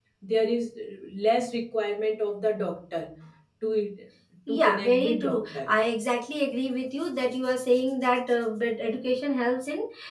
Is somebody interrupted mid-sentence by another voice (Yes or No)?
Yes